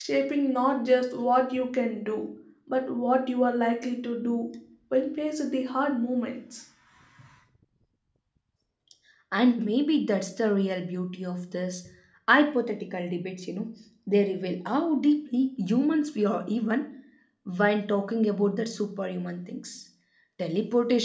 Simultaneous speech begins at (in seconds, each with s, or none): none